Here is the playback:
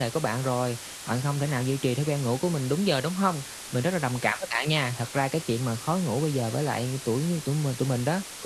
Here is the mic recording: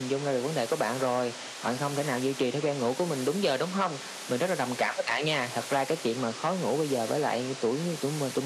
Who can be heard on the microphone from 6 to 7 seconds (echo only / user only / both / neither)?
echo only